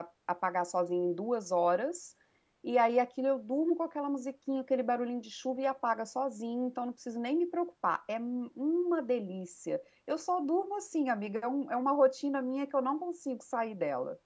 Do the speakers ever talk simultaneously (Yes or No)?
No